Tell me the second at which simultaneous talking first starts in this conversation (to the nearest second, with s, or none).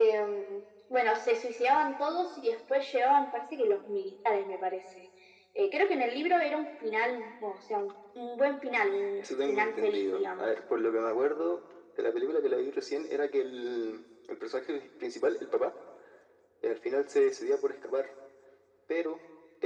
9 s